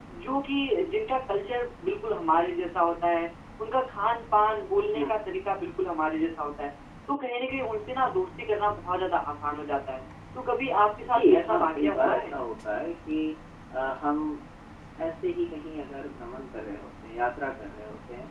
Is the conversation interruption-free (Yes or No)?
No